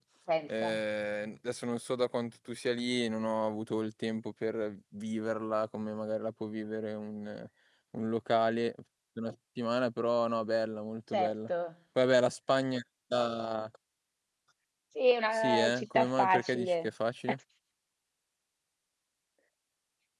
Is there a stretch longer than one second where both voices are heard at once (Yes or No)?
Yes